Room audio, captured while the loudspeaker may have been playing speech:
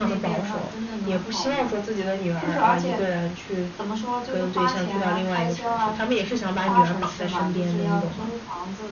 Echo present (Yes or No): Yes